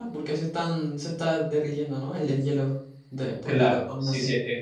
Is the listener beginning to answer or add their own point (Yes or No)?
Yes